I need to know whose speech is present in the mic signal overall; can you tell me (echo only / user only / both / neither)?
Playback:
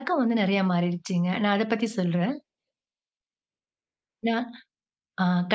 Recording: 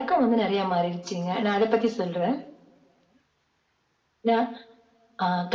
echo only